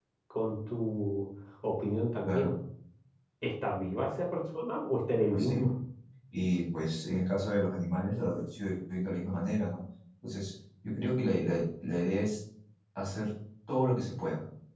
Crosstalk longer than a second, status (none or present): none